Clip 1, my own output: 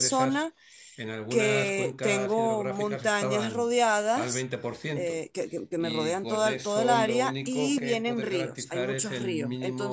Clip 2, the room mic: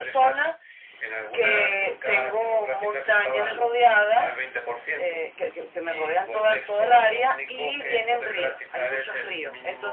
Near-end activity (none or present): present